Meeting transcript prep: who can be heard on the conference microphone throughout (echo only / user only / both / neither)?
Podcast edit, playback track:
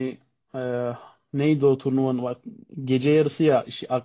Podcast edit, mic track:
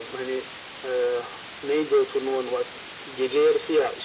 echo only